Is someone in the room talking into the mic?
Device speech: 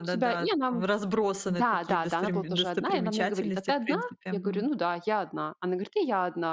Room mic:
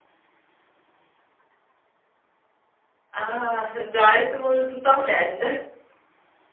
Yes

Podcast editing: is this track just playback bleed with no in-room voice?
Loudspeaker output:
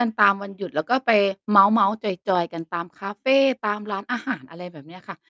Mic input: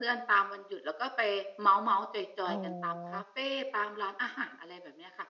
No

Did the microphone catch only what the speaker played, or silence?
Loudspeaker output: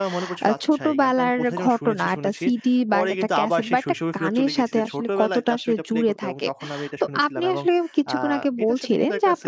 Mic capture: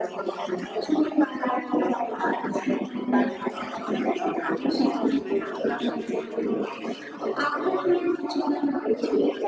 No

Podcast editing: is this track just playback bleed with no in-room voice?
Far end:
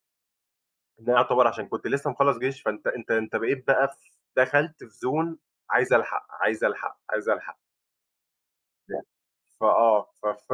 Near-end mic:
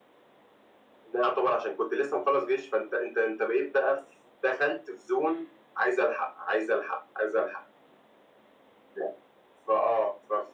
Yes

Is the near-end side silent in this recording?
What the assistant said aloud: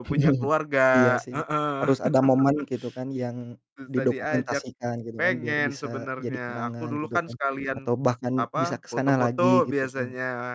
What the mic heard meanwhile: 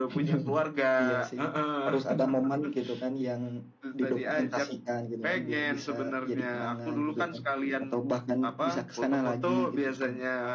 Yes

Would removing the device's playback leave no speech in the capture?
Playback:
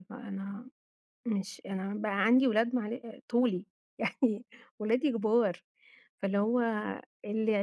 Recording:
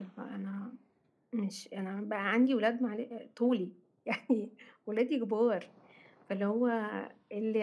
Yes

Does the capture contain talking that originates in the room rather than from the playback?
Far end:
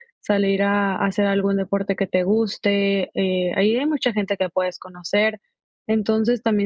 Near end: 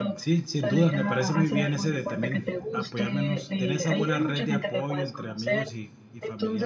Yes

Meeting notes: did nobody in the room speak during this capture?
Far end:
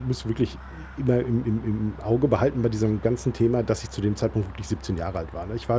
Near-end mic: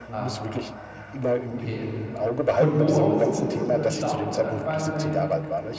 No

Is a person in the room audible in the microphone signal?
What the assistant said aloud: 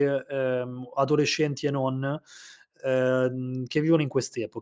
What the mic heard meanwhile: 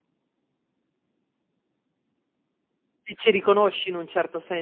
Yes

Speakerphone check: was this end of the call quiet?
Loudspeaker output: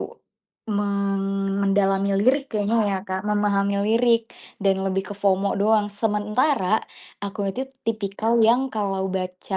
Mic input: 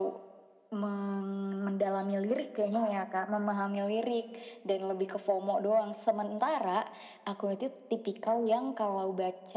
Yes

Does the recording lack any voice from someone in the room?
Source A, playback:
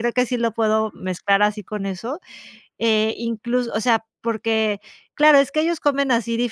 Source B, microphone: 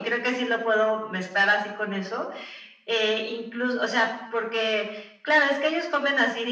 Yes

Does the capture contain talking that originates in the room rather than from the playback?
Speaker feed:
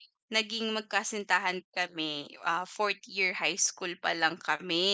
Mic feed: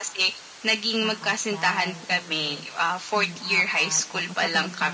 Yes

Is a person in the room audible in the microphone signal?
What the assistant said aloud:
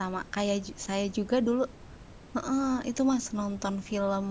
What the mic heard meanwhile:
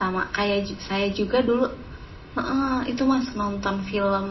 No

